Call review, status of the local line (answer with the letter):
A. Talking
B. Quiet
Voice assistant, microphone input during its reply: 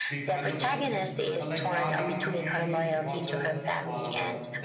A